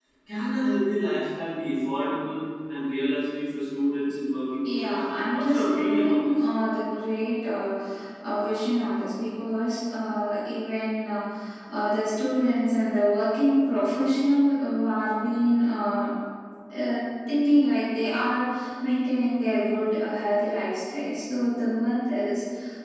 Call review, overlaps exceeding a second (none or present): present